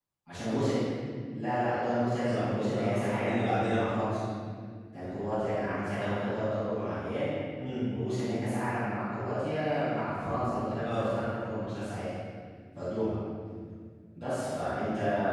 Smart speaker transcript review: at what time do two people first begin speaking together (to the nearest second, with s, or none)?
2 s